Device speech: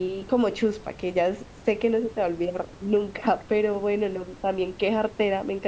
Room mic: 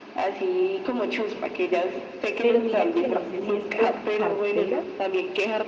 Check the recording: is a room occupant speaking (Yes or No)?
Yes